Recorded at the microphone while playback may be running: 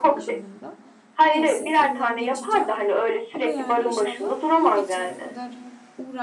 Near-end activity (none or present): present